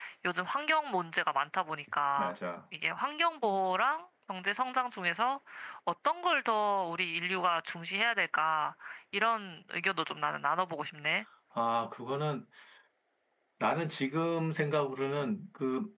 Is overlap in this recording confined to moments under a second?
Yes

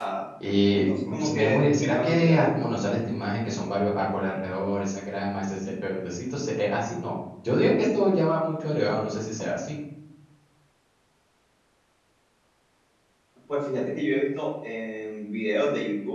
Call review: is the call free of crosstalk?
No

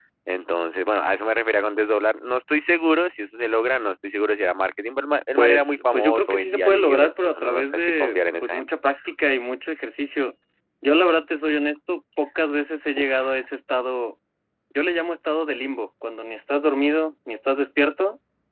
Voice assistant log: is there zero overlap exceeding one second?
No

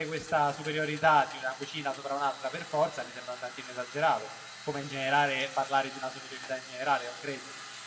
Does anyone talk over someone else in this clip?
No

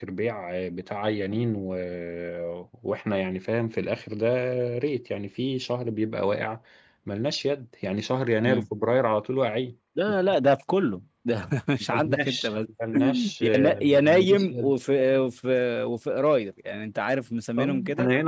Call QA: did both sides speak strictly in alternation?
No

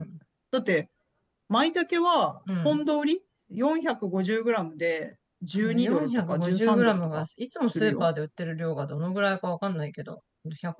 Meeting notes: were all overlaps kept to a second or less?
No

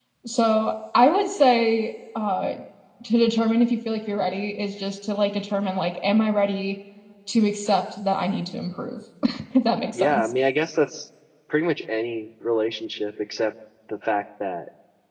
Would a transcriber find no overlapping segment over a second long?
Yes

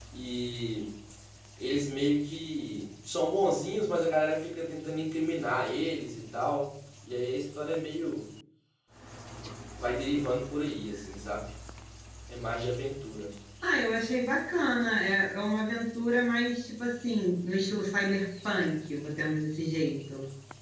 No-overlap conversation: Yes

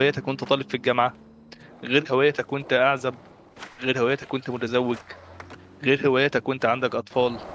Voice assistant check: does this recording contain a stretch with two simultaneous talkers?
No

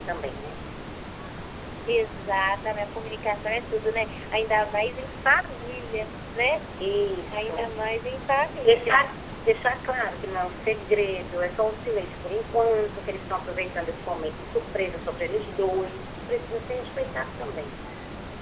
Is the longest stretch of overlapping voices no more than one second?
Yes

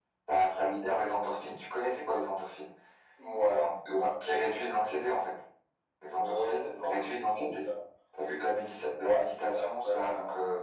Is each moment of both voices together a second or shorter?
No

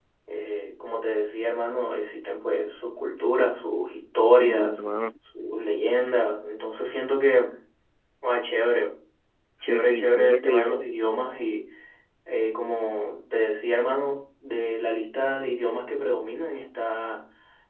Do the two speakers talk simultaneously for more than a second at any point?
Yes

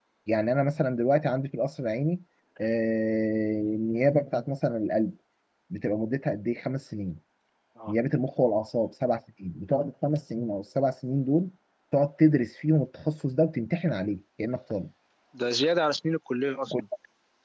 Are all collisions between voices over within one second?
Yes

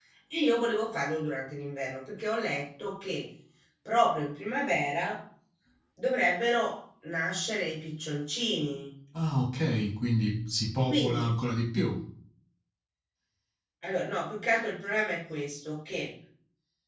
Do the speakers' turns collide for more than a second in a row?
No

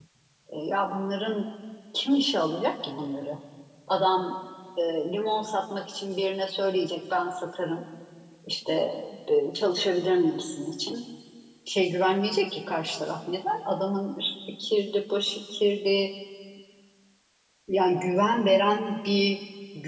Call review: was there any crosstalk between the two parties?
No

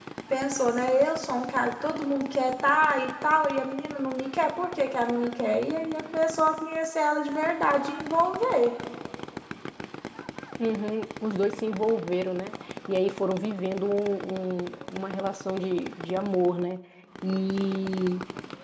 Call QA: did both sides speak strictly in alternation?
Yes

